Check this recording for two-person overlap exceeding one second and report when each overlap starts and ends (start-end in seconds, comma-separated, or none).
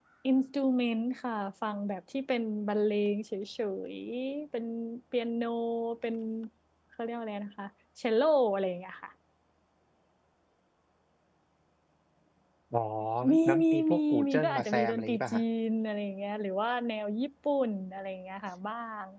13.4-15.4